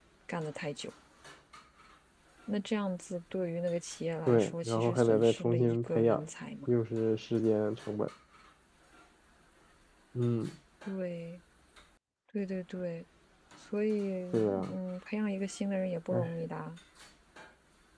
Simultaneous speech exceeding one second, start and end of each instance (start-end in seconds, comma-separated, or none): 4.3-6.2